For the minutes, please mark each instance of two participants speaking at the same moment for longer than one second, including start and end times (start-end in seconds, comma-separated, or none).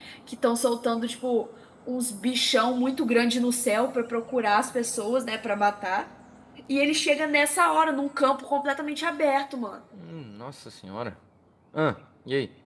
none